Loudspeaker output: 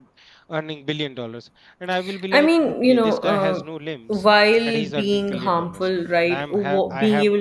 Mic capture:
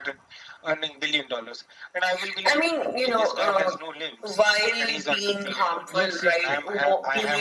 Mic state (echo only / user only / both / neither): both